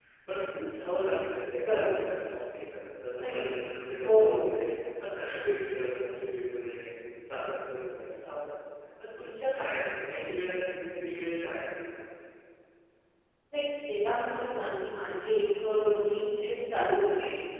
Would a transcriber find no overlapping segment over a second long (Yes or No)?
Yes